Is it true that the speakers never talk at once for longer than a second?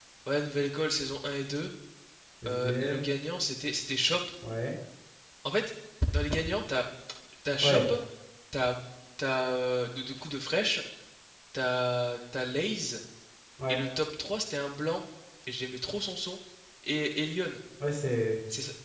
Yes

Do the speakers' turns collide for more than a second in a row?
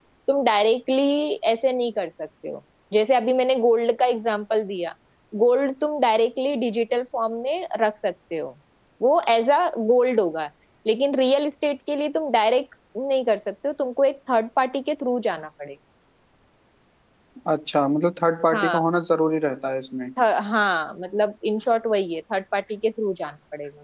No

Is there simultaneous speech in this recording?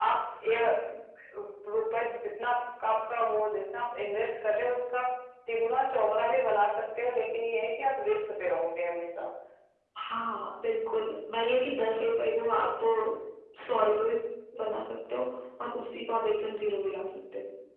No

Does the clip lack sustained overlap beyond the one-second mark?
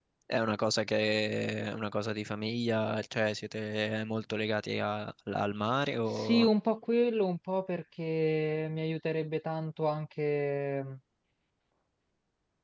Yes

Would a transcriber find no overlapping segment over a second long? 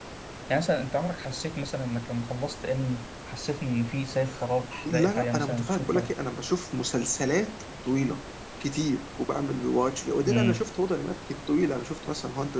No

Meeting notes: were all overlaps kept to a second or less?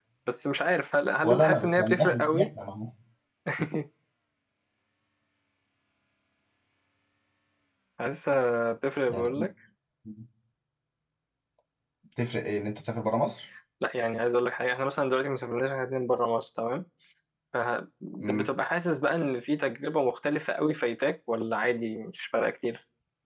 No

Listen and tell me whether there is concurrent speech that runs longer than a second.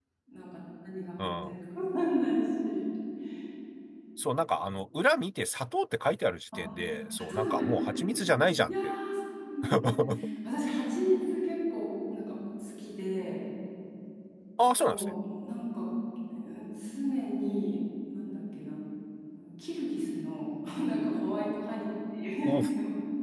No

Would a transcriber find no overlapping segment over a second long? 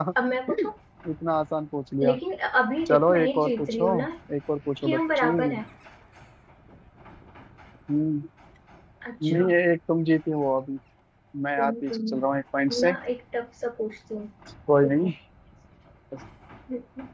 No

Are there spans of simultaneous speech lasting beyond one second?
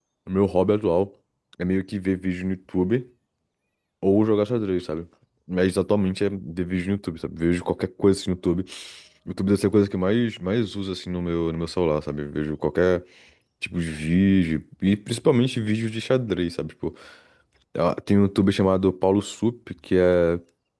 No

